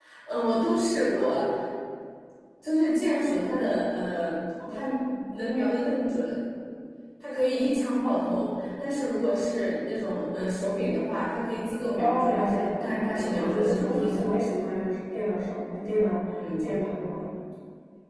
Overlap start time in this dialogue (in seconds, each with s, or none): 11.9 s